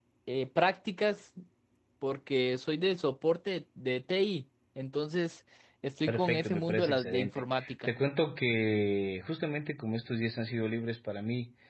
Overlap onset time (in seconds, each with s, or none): 6.1 s